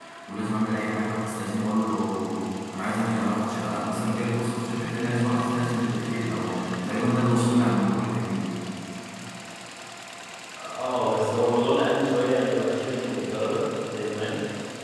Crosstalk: none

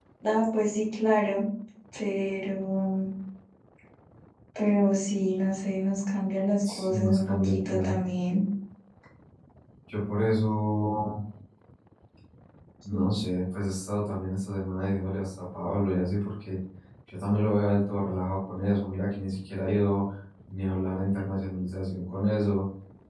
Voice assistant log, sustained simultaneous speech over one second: present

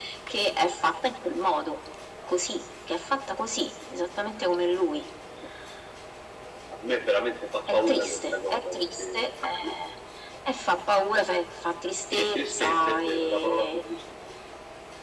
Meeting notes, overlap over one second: present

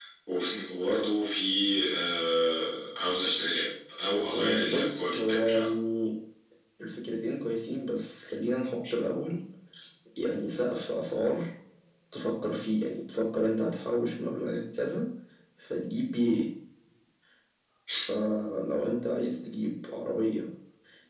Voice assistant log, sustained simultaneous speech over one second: present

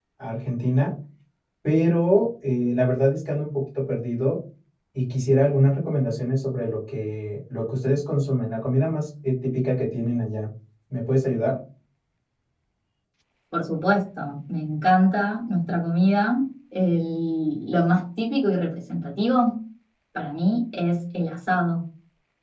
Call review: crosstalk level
none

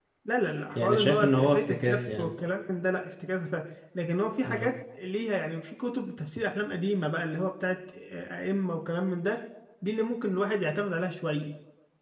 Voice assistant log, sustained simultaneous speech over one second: present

